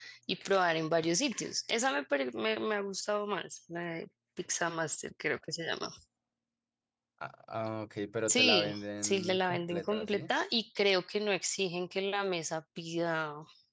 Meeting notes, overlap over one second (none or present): present